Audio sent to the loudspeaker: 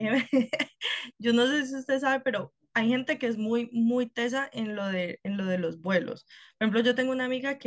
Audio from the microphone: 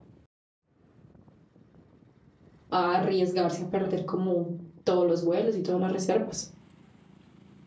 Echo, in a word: none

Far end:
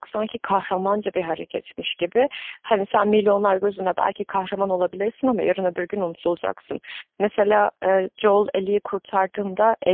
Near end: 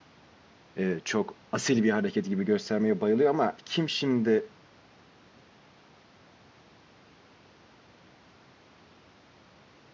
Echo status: none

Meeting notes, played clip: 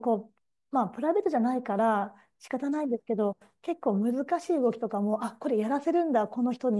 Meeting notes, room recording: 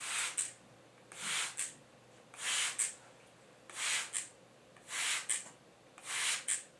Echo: none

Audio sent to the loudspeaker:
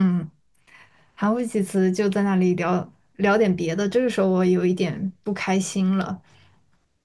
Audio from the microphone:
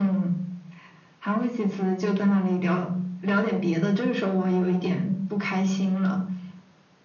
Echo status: present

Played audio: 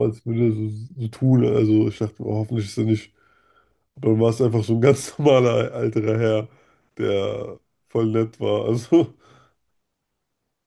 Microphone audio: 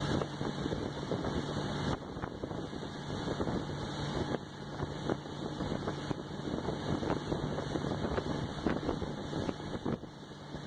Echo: none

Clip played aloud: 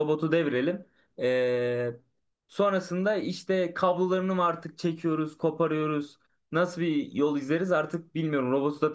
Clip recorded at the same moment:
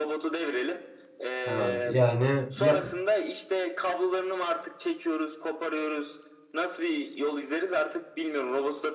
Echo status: present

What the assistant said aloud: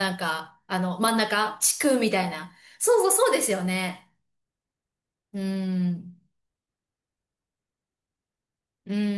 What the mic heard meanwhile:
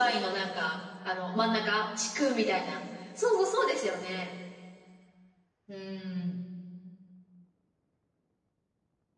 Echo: present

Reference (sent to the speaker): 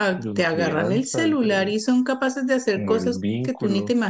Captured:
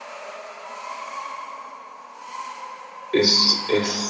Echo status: none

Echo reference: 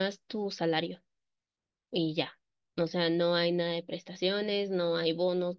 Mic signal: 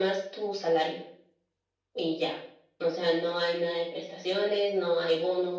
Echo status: present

